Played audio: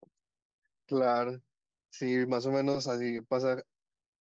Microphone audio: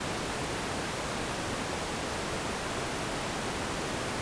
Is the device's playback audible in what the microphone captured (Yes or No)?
No